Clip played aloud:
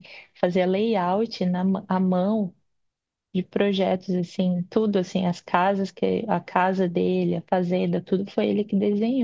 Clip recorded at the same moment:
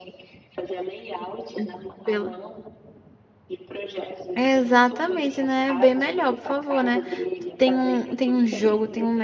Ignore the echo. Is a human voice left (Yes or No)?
Yes